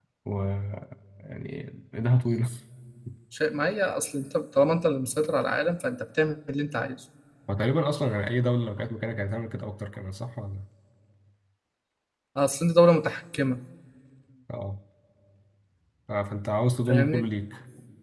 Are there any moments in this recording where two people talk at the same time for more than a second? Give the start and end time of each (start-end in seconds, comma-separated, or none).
none